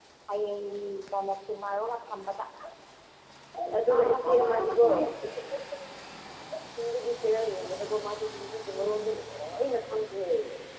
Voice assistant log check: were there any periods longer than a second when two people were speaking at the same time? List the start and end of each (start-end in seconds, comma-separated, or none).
3.7-4.9